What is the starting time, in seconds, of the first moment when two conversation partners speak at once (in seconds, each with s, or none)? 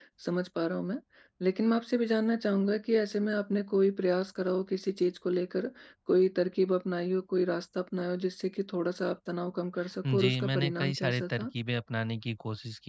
10.0 s